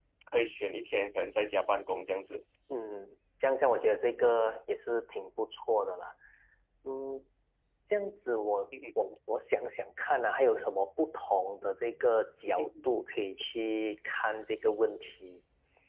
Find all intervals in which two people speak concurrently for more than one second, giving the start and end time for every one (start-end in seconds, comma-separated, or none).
none